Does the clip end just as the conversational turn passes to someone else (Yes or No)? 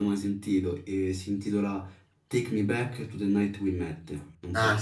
Yes